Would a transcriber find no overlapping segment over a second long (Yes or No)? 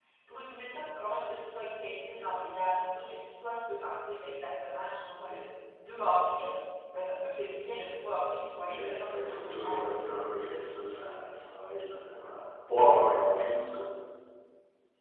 No